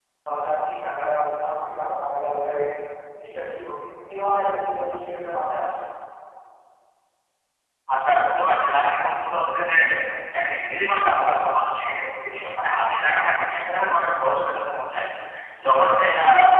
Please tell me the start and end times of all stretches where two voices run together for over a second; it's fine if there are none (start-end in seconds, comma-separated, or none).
none